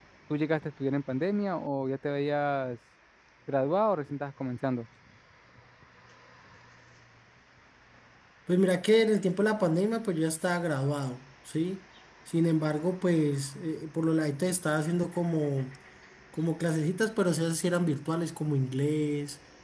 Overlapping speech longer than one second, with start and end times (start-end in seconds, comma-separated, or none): none